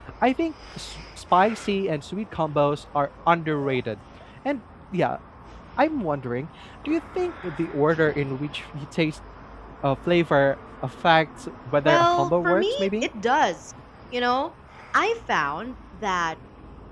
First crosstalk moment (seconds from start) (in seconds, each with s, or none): 11.8 s